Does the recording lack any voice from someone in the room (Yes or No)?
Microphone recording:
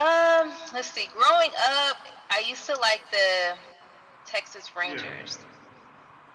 No